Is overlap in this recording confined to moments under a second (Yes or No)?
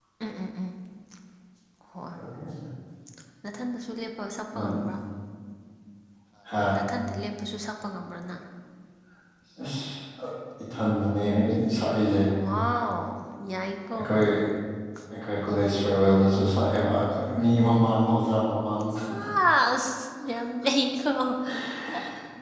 Yes